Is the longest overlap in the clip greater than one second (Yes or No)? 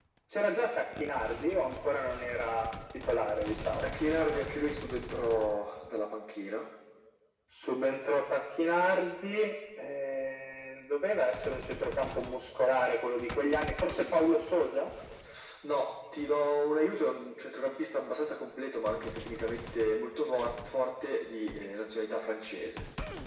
No